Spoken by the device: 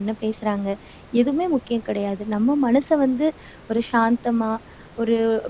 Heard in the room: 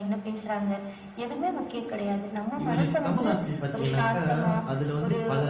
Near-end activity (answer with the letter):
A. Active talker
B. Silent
A